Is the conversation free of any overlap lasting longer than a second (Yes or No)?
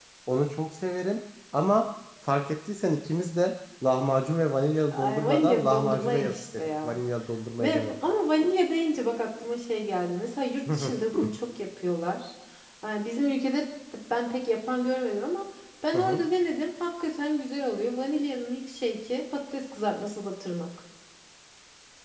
No